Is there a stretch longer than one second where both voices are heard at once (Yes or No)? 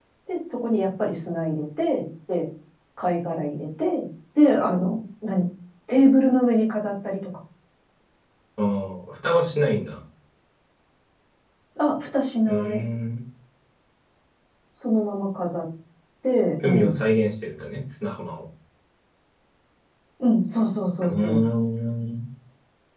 No